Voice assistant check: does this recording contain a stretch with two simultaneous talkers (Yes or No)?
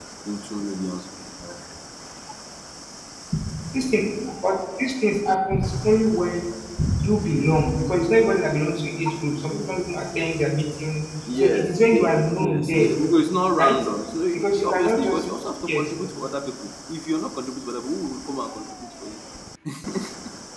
Yes